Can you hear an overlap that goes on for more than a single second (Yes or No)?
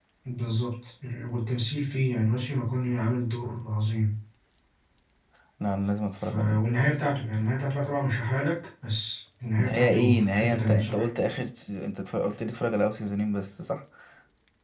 Yes